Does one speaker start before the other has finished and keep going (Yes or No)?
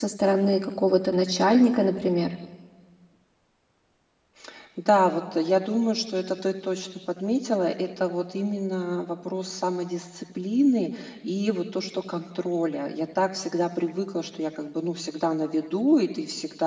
No